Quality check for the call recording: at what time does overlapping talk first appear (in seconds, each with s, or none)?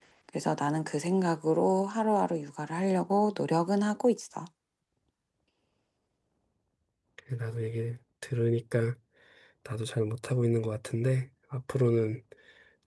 none